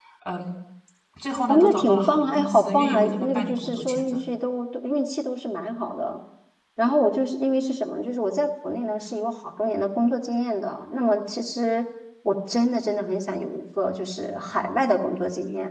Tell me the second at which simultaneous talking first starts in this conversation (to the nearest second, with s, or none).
1 s